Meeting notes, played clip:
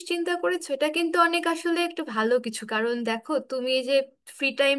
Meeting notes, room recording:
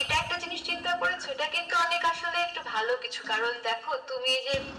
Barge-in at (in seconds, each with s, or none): none